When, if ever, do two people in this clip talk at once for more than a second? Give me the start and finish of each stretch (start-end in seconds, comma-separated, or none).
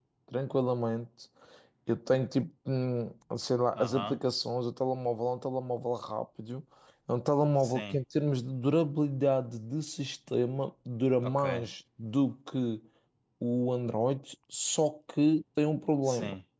none